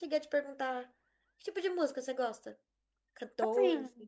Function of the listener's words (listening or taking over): taking over